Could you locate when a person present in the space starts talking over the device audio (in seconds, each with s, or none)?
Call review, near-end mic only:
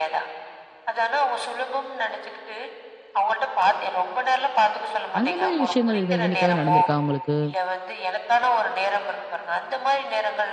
5.2 s